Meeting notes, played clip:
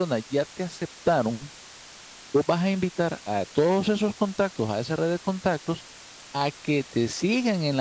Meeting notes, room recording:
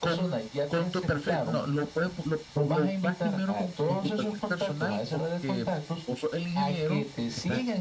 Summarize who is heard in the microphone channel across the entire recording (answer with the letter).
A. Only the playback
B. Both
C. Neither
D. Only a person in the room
B